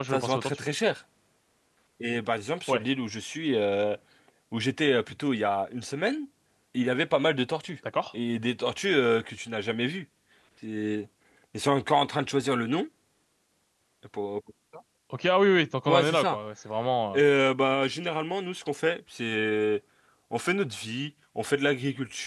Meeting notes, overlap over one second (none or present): none